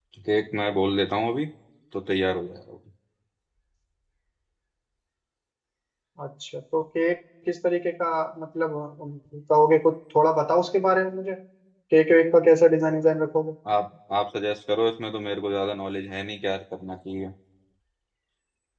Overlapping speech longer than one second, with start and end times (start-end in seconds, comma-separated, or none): none